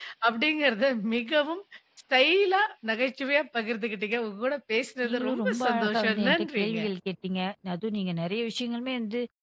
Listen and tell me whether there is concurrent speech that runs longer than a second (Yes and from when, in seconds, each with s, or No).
Yes, from 5.0 s